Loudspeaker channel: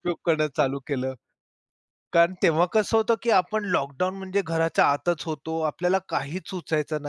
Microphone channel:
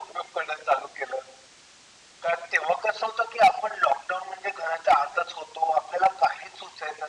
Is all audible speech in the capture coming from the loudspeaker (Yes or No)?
Yes